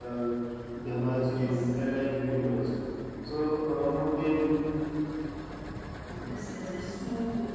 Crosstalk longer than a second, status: none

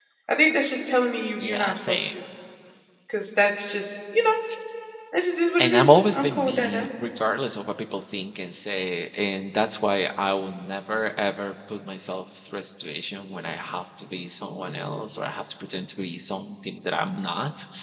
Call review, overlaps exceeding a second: present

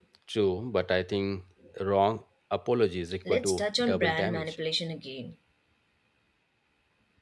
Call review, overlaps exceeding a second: present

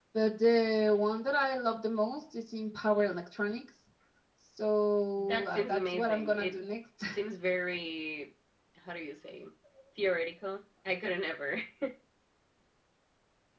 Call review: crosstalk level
present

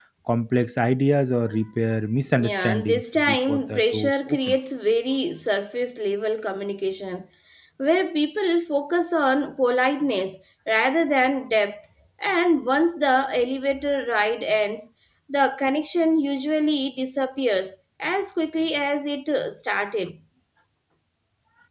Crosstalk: present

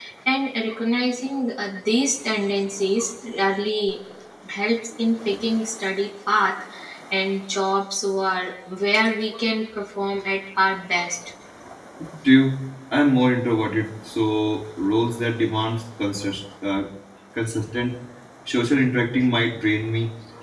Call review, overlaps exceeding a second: none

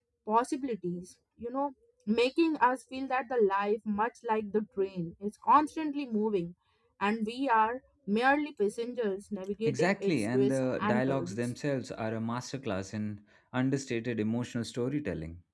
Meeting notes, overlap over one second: present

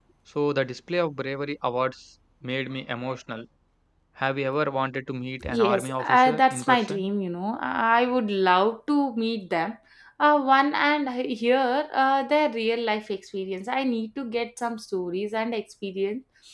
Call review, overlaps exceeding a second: present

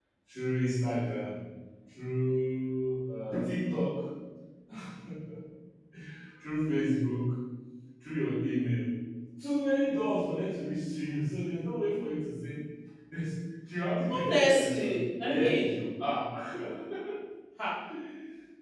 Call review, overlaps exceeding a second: present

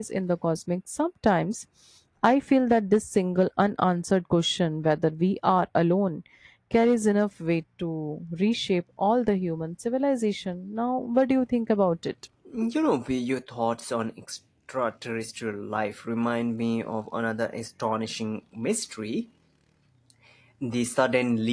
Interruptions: none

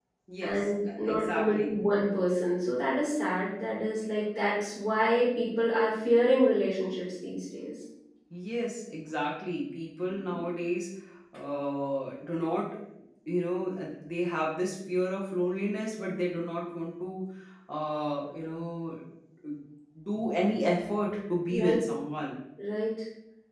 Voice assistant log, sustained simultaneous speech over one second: present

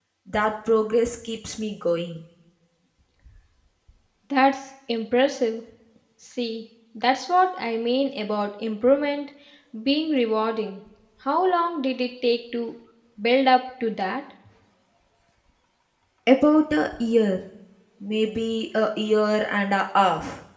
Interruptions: none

